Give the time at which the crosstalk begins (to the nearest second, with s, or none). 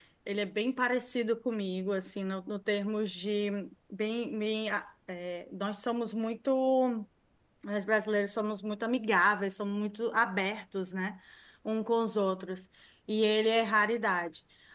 none